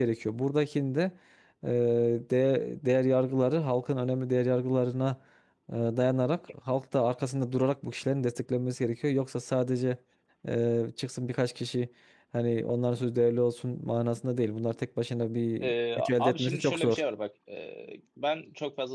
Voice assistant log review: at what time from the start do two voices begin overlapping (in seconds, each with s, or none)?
15.6 s